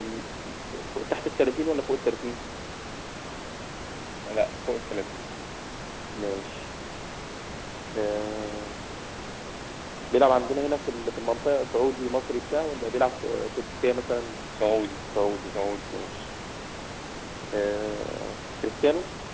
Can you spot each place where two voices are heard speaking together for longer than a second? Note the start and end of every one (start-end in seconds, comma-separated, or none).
none